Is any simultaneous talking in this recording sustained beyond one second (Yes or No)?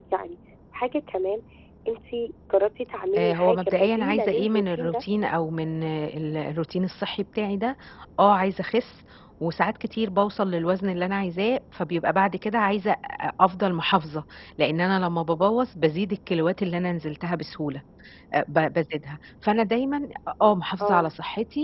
Yes